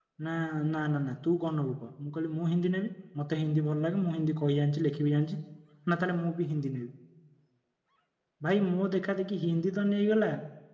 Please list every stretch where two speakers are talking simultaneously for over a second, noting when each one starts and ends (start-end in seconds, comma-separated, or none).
none